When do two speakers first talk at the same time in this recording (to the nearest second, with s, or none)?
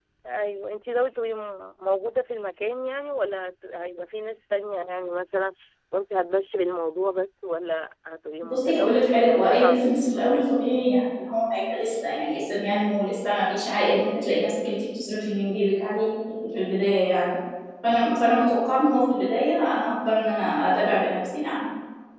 8 s